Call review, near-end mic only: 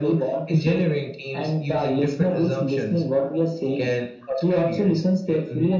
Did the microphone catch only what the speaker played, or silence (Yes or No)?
Yes